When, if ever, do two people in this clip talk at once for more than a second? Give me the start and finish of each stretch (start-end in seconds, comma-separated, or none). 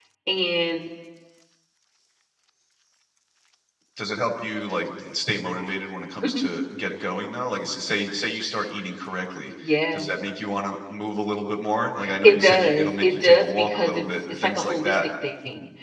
12.2-15.1